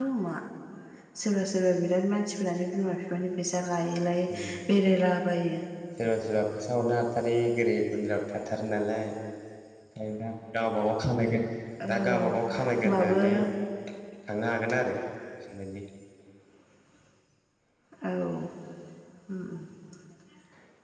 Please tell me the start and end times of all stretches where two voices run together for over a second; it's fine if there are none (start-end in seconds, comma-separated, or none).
11.9-13.2